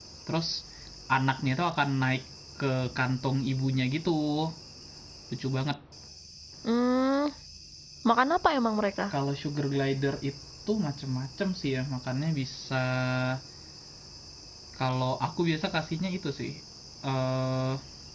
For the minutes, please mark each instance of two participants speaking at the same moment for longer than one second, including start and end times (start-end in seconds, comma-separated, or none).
none